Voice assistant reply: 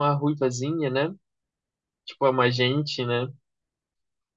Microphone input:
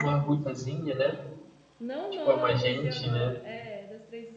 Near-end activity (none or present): present